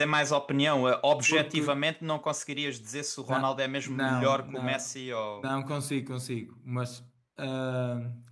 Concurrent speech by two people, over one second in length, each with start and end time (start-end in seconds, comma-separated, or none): 3.3-4.9